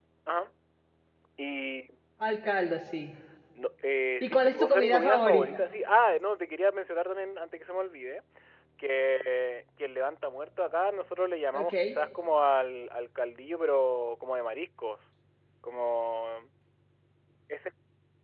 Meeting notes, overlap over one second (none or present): present